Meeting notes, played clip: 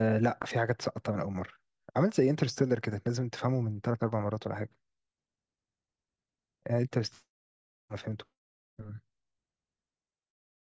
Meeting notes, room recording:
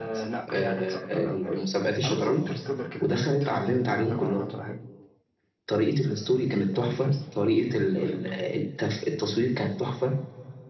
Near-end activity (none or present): present